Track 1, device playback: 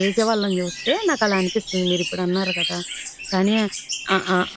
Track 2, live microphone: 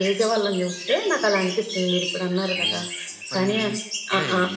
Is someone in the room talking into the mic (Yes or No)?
Yes